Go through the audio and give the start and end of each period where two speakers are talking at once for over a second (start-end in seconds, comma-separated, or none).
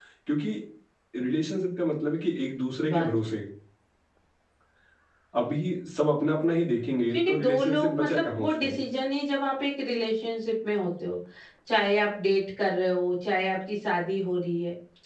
7.1-8.8